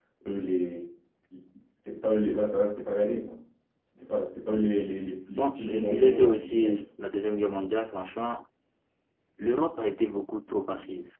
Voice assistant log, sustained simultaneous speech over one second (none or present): present